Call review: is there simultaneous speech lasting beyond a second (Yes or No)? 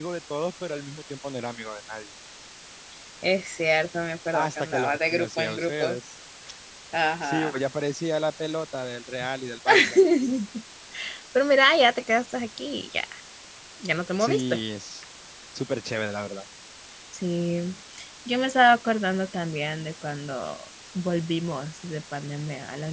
Yes